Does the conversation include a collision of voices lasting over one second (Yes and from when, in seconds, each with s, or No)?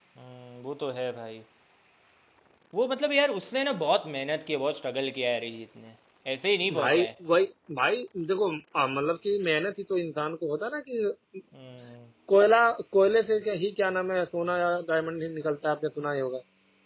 No